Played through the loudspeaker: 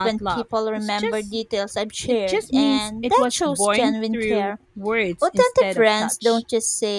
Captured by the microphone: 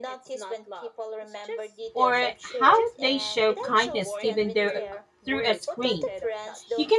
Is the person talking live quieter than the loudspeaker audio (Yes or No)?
No